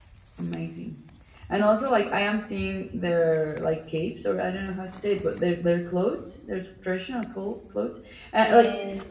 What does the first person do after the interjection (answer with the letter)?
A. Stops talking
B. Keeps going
B